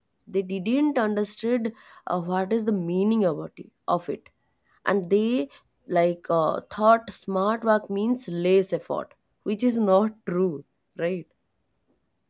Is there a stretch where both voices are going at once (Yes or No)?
No